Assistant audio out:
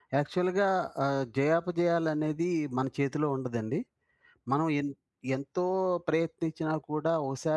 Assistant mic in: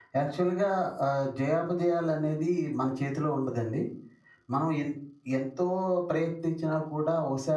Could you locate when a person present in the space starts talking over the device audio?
none

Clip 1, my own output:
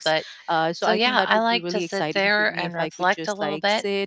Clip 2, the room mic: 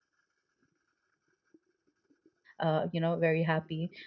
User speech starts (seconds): 3 s

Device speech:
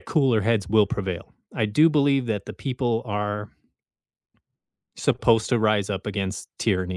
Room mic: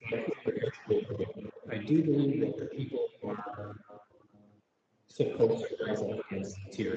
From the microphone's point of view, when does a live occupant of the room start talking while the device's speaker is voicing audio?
none

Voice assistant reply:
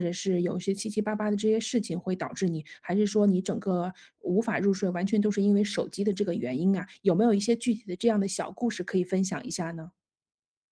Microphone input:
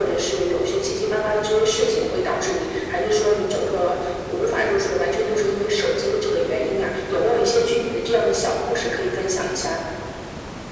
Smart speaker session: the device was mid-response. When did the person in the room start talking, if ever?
none

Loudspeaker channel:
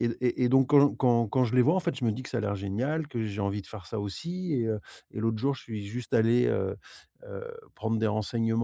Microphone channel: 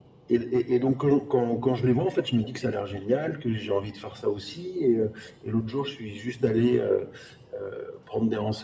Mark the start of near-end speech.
none

